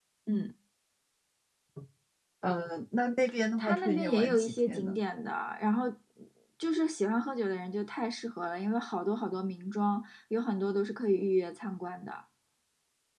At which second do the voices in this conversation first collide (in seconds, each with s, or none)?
3.6 s